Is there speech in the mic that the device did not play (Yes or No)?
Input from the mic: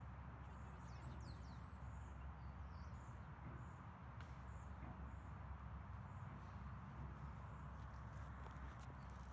No